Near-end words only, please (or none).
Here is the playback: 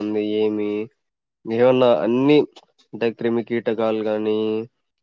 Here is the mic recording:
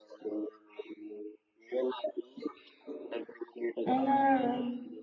మ్మ్